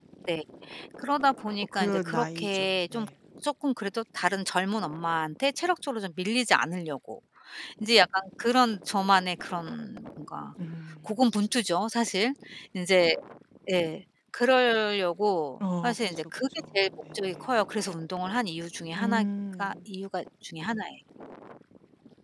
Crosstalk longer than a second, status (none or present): present